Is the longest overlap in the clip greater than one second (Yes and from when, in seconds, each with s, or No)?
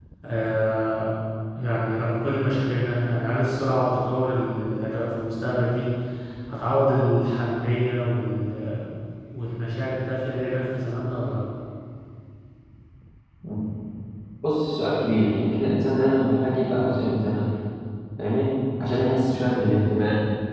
No